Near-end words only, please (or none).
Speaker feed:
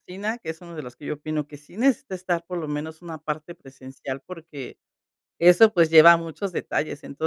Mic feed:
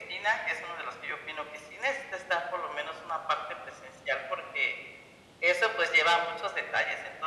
none